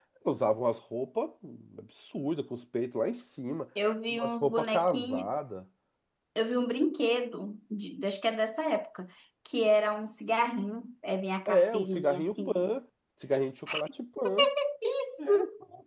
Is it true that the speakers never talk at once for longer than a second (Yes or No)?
No